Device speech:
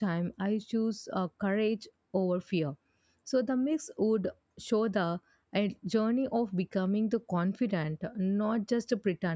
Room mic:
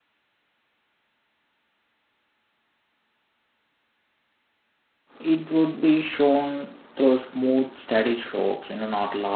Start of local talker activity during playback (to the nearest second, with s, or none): 5 s